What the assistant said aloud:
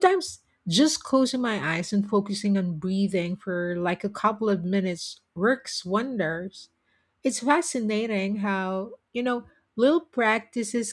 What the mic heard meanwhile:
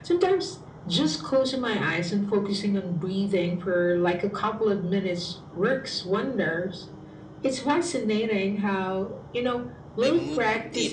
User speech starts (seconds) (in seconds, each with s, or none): 10.0 s